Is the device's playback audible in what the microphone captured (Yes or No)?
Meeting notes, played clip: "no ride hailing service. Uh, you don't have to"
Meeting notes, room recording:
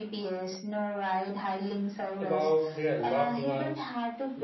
Yes